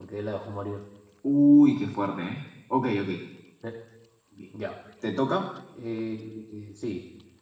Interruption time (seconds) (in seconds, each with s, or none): none